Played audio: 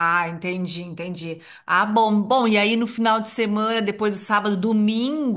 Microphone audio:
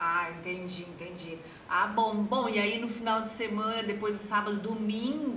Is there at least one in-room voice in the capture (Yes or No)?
No